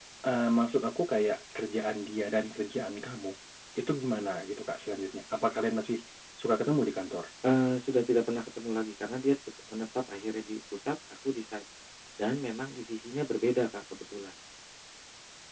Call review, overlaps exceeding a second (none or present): none